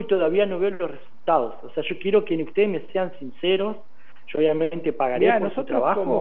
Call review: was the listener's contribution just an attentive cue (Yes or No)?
No